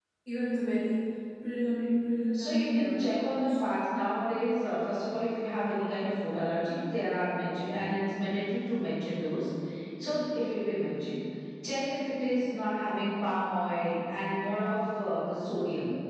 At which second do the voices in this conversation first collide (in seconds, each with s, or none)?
2.3 s